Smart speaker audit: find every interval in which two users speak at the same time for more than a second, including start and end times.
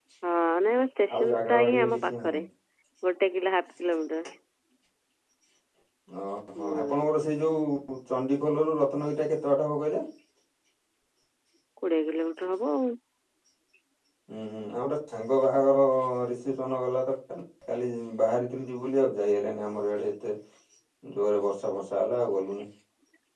1.1-2.4

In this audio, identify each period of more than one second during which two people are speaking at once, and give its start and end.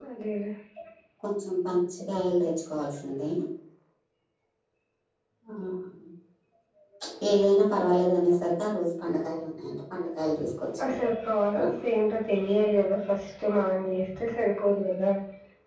none

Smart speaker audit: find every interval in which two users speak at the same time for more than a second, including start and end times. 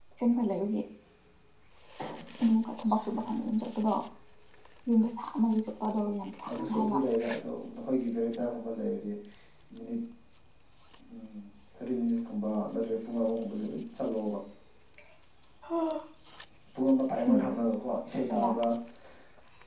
none

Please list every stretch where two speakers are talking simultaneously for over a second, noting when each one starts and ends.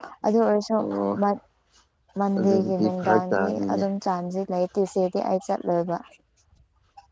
2.4-3.8

